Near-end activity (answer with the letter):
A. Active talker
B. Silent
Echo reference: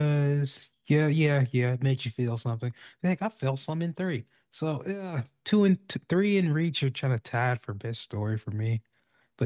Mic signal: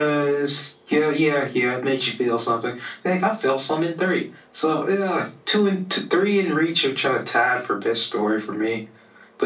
B